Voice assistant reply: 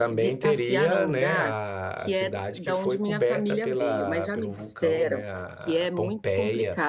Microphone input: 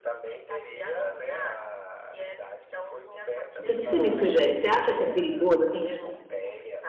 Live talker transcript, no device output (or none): O que que você me sugere? Você acha que é perigoso? Assim,